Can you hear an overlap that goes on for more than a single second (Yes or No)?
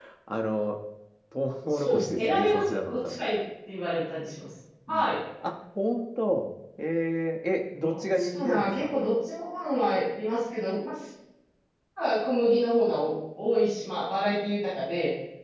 Yes